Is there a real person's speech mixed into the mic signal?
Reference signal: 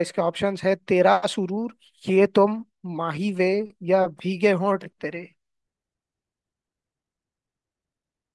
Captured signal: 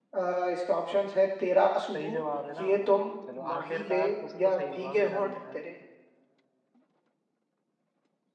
Yes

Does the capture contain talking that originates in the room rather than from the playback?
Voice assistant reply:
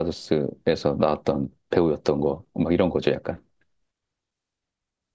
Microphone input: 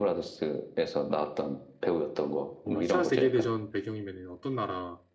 Yes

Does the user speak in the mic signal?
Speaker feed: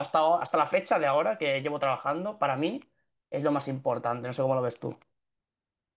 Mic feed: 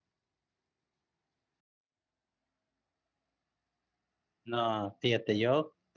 Yes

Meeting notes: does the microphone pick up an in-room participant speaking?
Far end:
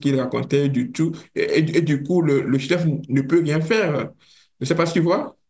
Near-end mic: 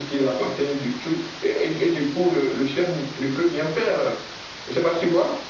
No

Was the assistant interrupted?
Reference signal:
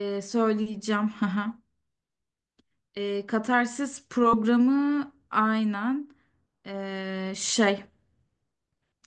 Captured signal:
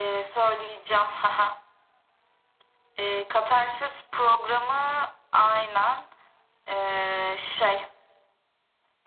No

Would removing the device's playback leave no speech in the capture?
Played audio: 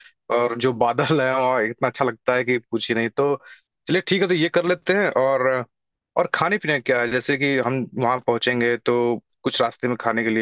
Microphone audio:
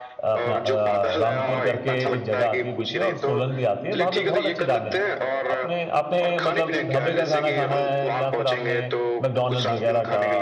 No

